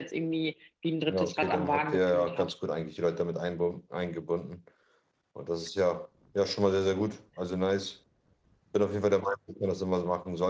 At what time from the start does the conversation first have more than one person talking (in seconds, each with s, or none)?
1.1 s